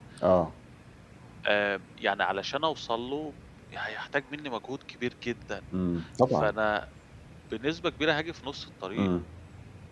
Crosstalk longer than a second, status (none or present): none